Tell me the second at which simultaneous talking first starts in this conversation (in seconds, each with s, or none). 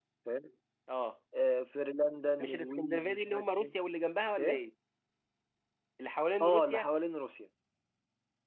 2.4 s